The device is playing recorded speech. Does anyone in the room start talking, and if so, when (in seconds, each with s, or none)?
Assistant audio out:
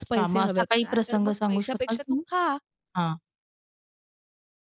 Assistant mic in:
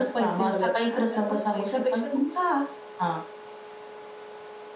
none